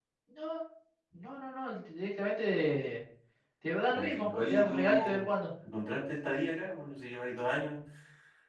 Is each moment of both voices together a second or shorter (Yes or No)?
No